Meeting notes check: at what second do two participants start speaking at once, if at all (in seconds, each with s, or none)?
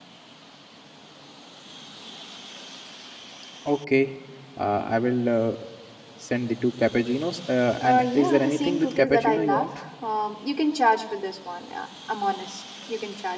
7.8 s